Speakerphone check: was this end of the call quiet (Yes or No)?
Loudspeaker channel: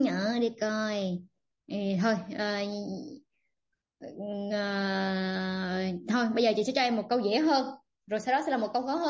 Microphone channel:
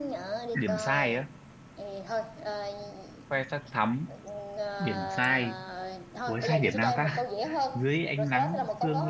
No